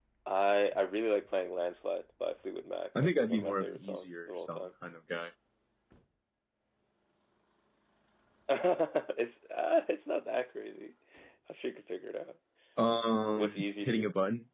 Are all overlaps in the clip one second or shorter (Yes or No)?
No